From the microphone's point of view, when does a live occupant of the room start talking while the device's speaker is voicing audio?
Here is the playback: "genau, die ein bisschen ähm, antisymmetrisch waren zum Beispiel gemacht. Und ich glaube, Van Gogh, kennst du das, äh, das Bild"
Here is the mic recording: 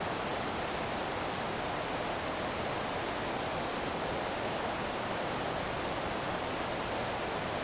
none

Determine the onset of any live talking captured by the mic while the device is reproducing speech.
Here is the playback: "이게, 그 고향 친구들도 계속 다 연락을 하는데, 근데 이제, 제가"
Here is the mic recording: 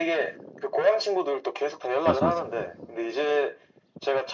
2.0 s

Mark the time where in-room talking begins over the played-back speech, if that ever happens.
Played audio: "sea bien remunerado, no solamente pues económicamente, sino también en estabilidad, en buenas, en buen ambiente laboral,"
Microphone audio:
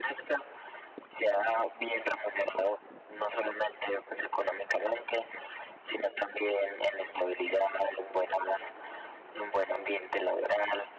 none

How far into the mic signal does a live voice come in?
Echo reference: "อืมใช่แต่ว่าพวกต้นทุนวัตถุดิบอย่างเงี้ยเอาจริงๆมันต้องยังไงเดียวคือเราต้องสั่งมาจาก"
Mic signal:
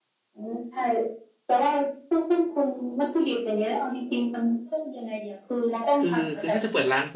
6.0 s

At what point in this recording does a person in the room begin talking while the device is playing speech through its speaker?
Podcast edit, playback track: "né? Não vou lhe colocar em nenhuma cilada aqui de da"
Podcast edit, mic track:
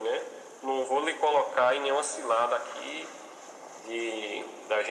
none

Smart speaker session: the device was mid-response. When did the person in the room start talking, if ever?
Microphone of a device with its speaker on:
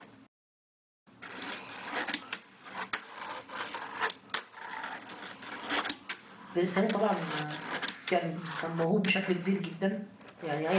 6.6 s

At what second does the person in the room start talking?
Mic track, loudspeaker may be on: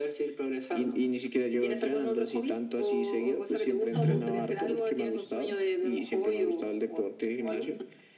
3.9 s

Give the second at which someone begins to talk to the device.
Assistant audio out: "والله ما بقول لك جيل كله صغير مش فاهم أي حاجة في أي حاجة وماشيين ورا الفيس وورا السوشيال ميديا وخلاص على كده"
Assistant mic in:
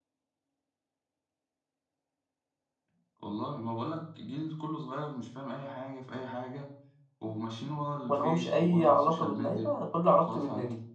8.1 s

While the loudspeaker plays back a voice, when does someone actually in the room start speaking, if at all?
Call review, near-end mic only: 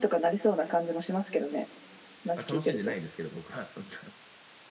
2.3 s

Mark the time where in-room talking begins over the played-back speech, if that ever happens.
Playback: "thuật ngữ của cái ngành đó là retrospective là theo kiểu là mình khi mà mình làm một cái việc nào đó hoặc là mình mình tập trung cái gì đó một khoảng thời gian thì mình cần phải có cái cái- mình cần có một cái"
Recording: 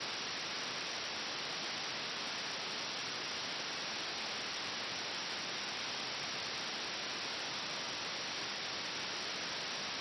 none

